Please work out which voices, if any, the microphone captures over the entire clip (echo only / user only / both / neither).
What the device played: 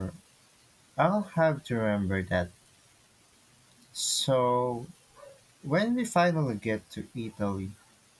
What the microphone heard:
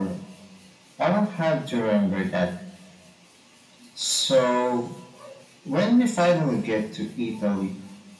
echo only